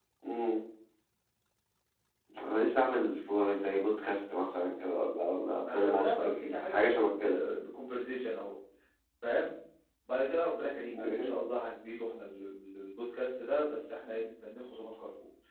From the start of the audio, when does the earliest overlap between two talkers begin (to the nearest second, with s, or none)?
6 s